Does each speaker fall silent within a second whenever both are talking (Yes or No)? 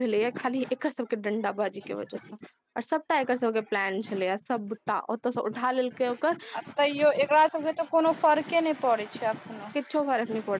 Yes